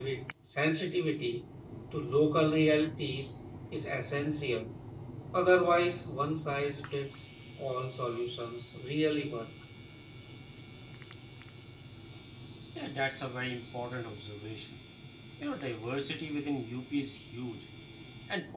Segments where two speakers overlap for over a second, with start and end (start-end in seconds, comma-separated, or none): none